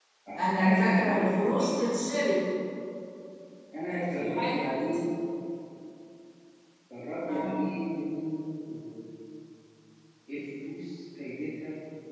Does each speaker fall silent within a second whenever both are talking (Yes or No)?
No